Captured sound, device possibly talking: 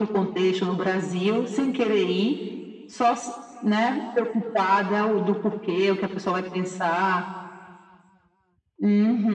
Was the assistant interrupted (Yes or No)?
No